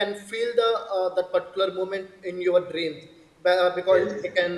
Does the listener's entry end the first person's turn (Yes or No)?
No